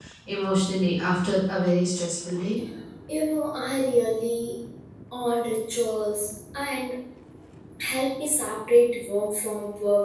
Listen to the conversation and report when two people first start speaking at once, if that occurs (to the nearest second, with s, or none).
none